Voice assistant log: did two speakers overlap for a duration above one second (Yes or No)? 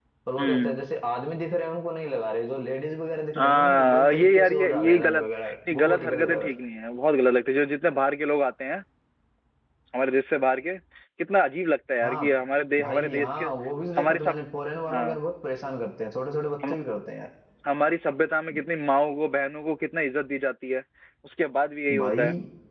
Yes